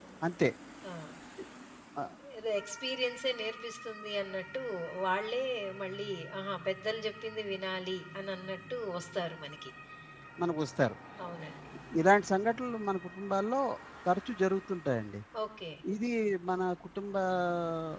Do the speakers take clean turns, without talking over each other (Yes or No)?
Yes